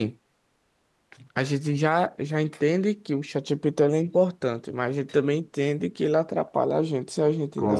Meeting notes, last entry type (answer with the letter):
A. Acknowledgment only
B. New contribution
B